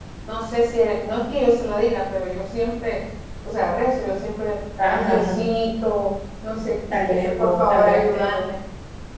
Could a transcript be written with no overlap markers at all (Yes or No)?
No